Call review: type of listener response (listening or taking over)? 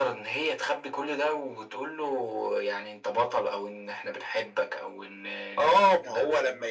taking over